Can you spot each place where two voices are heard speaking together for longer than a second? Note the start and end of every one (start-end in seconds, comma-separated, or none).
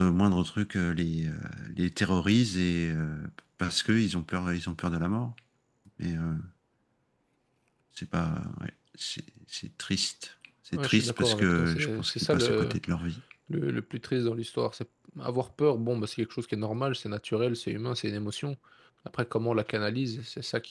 10.7-12.8